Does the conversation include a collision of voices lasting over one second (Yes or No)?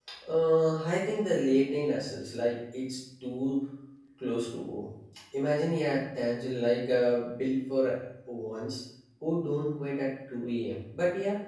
No